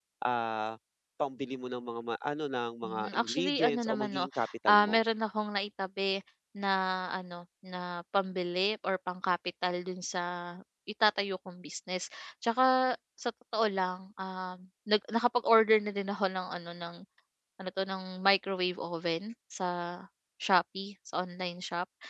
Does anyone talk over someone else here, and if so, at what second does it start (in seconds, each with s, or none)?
2.8 s